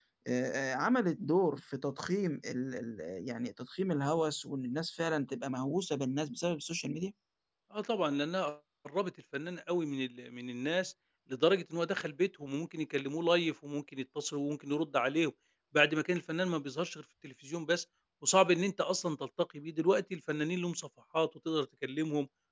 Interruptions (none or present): none